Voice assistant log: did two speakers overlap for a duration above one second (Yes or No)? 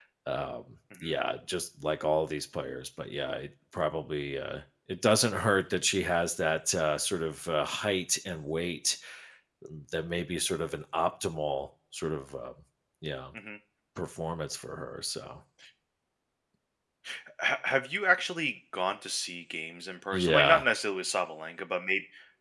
No